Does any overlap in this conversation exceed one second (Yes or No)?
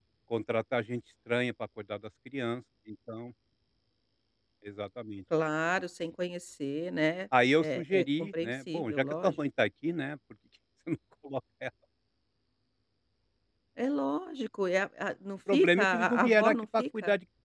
Yes